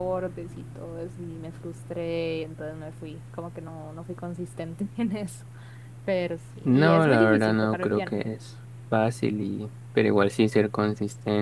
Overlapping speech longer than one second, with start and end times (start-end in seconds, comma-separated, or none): 6.6-8.1